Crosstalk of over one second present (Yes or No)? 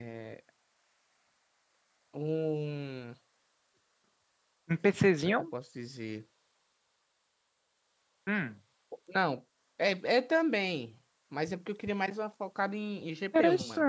No